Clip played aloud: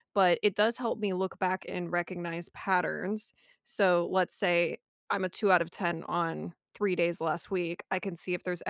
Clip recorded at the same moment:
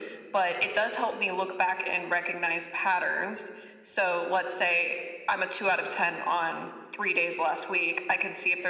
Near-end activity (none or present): none